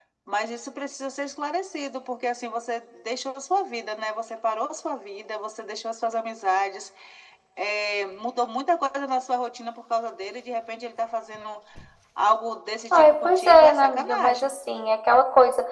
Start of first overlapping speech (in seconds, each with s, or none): 12.9 s